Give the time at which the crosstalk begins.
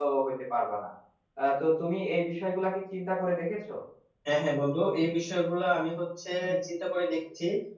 none

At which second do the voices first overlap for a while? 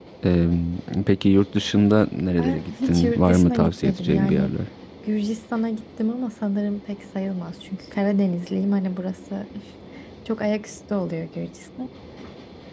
2 s

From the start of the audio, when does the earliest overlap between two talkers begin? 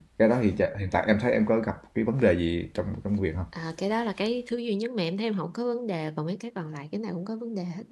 none

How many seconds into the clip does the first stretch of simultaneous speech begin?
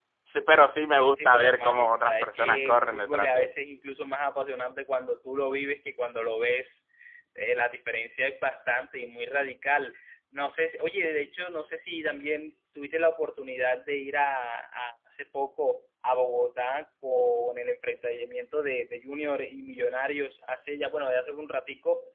1 s

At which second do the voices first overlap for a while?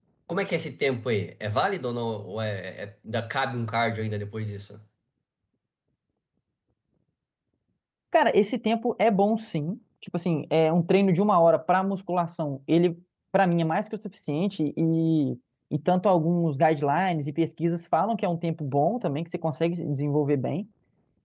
none

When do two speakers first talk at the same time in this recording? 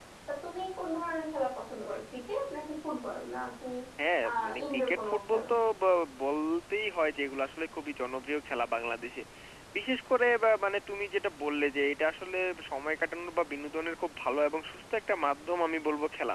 4 s

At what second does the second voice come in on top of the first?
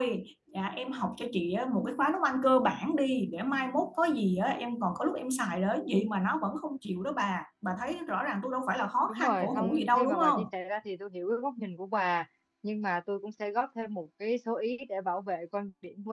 9 s

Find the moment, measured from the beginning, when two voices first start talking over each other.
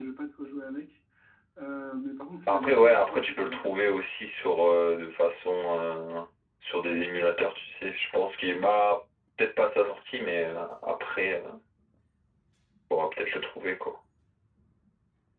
2 s

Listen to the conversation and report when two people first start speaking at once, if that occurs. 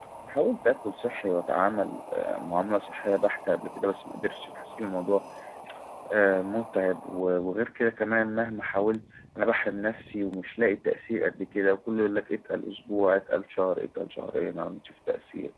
none

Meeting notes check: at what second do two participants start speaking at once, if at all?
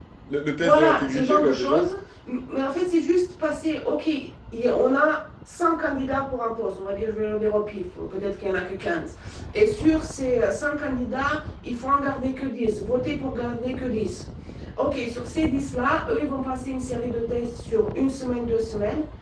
1 s

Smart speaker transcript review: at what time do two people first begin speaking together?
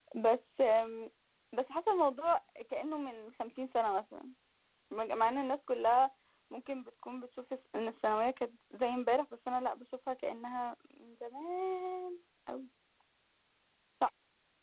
none

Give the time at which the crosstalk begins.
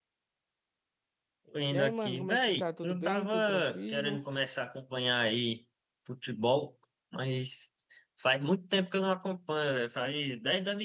2 s

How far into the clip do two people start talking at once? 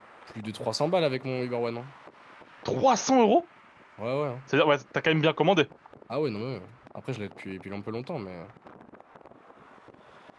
none

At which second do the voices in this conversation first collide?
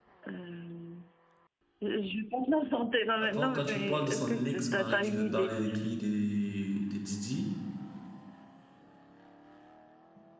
3 s

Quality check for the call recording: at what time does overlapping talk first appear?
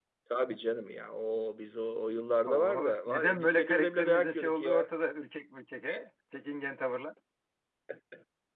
2 s

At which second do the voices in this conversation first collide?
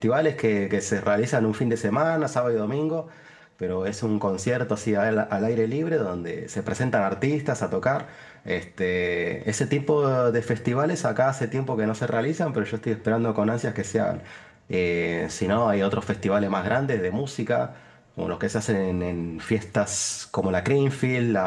none

